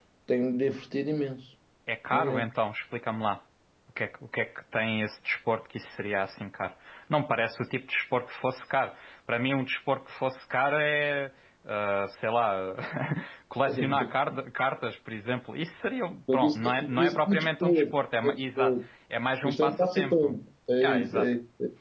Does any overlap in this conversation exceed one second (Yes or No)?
Yes